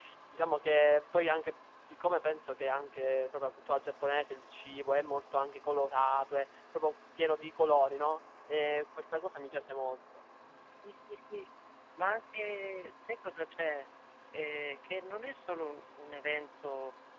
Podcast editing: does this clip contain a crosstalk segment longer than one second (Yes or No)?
No